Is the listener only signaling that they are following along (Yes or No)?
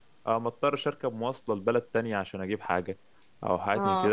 Yes